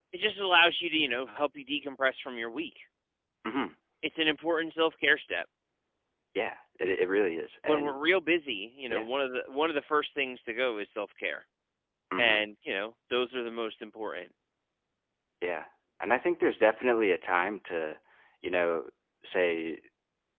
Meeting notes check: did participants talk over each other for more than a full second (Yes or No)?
No